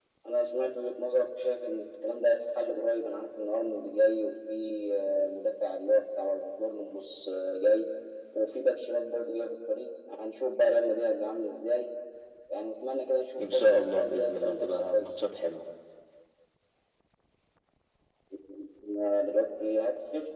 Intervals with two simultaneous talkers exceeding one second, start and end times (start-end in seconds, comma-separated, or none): 13.4-15.2